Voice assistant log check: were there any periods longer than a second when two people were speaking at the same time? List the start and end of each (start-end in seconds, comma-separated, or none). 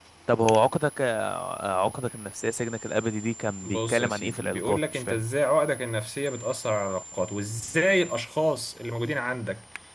3.6-5.2